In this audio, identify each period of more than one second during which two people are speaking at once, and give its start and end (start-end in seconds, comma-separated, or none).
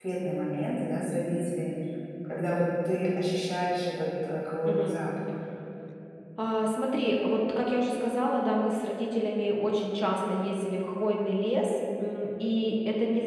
none